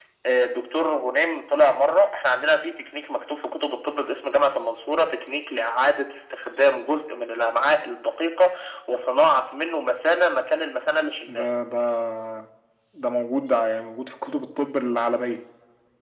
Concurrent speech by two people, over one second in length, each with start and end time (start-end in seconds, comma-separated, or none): none